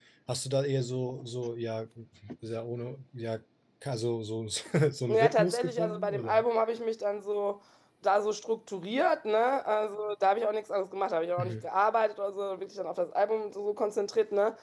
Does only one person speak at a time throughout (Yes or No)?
No